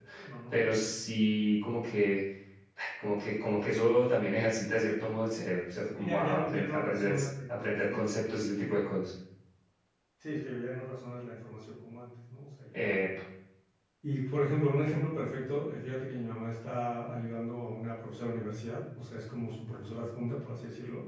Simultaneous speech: Yes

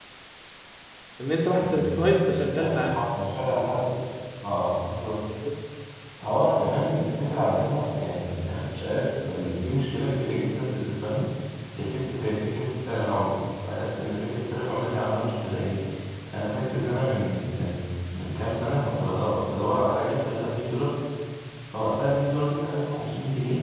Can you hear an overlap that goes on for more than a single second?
No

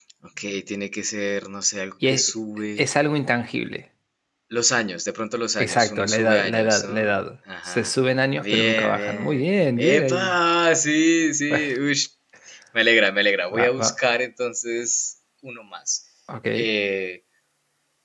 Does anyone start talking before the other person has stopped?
Yes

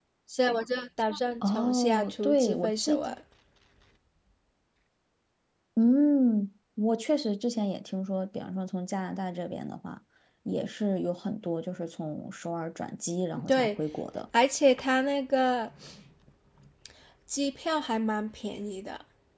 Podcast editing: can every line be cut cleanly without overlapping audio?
No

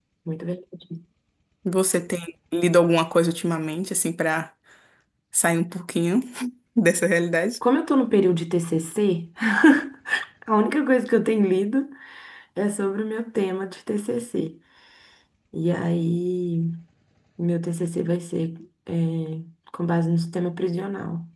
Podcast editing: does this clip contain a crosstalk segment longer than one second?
No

